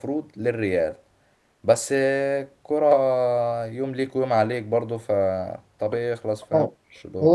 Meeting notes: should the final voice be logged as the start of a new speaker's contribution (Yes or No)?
Yes